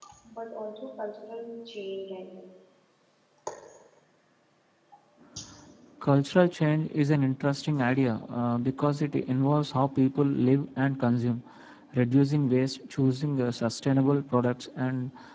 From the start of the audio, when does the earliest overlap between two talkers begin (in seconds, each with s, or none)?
none